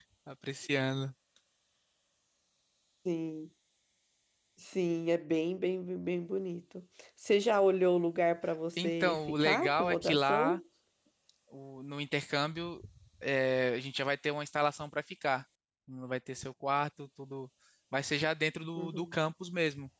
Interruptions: present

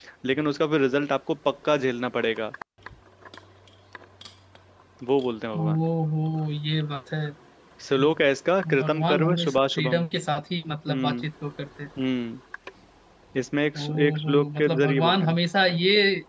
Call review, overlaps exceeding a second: present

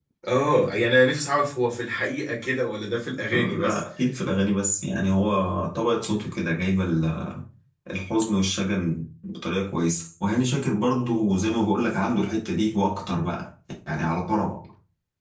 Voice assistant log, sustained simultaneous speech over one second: none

